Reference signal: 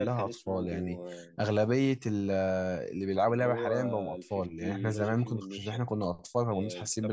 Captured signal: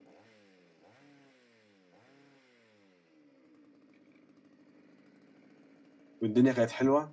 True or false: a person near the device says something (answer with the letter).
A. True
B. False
A